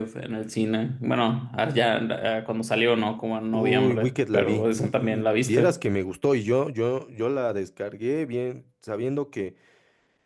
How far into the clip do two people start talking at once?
4 s

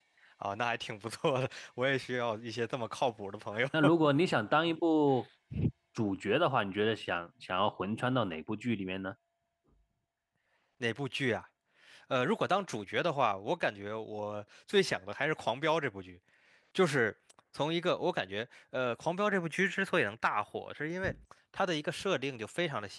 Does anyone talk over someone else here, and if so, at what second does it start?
none

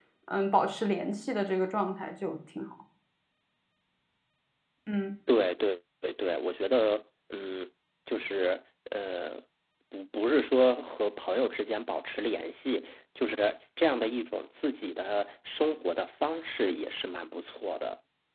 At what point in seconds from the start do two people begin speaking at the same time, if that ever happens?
none

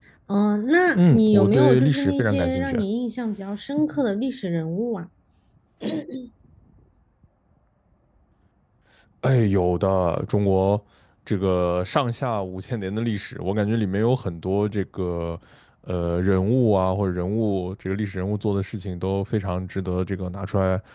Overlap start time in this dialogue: 1 s

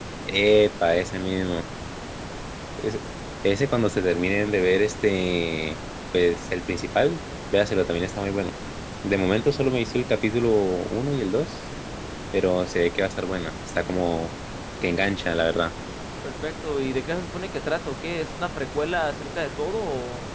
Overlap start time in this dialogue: none

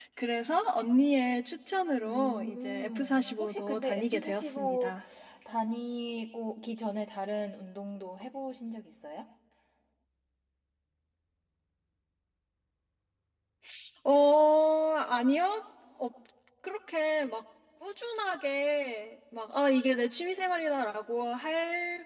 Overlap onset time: 2 s

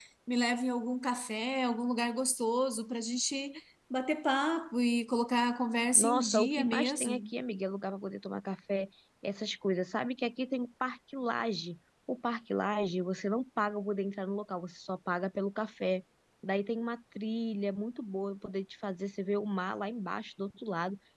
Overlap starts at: 6 s

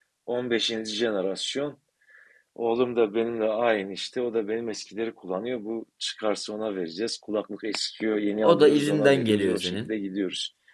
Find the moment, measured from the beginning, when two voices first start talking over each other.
8 s

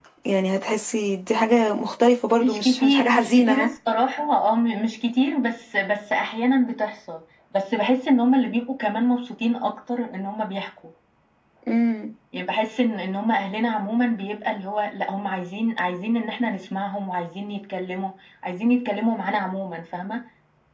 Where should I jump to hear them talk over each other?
2 s

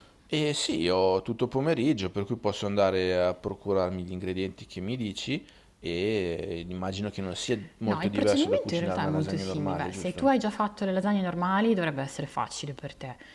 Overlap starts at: 8 s

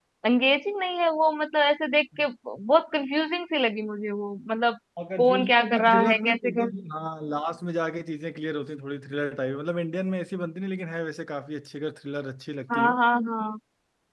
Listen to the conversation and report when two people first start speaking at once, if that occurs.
5 s

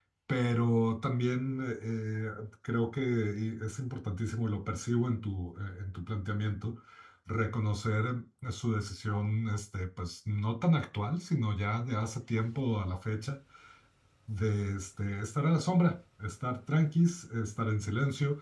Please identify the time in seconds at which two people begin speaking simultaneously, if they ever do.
none

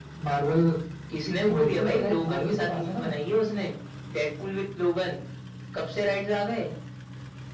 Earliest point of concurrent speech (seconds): 1 s

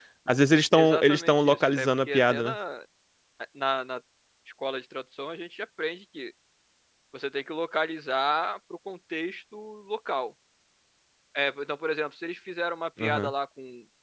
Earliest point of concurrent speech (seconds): 1 s

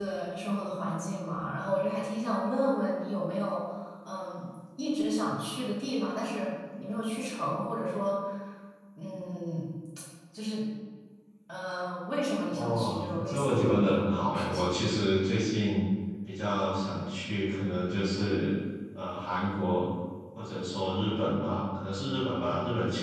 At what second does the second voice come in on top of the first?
13 s

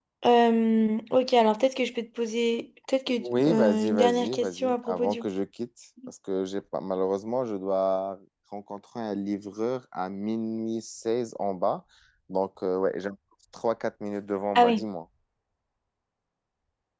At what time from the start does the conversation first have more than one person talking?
3 s

